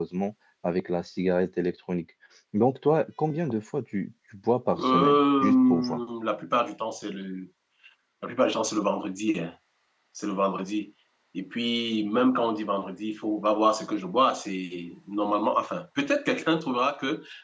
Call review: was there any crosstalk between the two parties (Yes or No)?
Yes